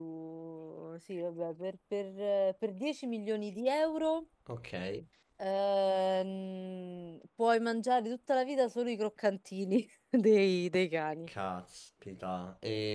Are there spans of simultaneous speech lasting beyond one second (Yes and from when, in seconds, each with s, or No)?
No